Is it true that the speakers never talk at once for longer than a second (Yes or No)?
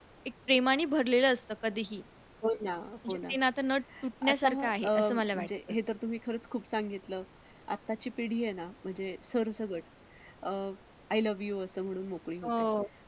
No